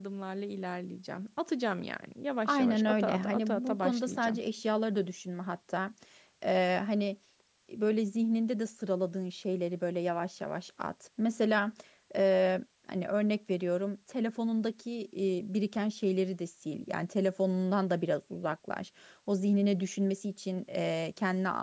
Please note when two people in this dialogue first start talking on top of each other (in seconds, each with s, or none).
2.5 s